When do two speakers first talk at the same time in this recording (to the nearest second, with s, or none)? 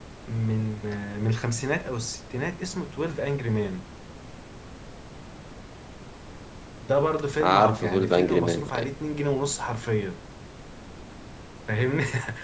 7 s